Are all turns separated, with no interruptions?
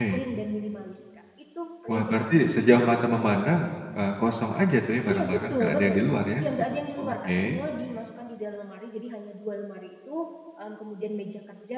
No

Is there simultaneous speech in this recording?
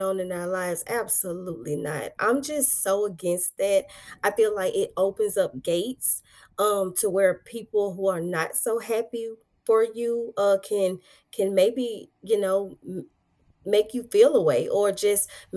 No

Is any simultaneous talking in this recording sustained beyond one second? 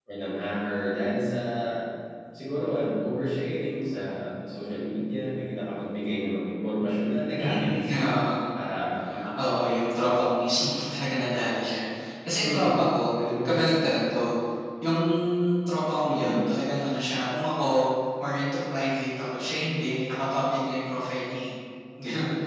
No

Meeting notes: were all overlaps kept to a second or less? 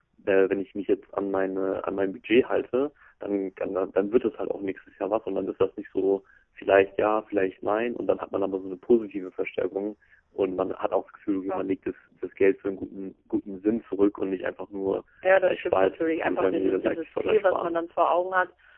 No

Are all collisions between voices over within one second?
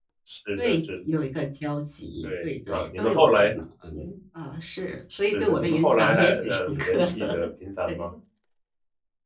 No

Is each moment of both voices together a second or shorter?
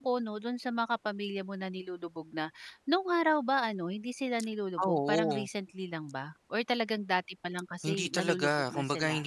No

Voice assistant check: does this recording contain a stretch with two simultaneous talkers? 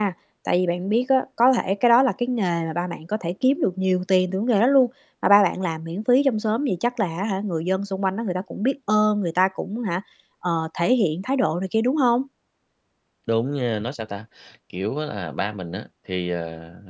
No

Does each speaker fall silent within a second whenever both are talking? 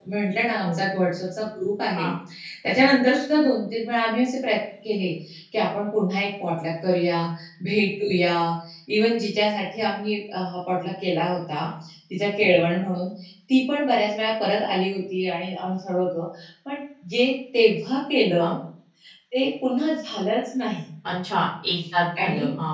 Yes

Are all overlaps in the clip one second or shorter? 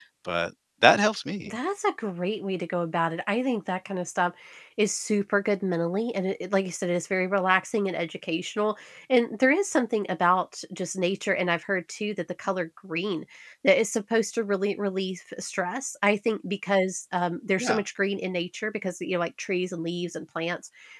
Yes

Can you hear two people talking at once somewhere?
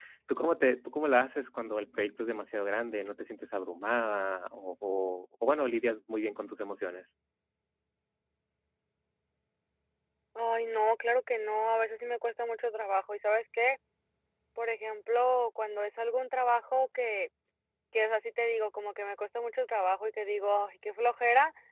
No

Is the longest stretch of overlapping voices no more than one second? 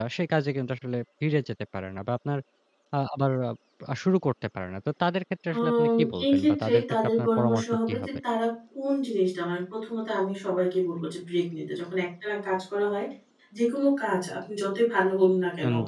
No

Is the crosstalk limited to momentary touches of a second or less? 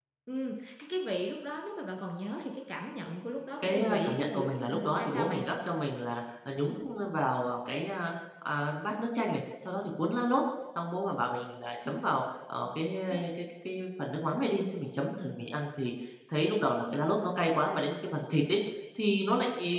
No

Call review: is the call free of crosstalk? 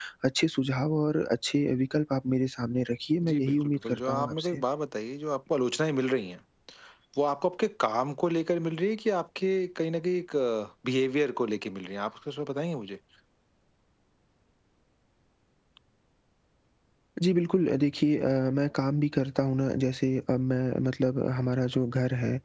No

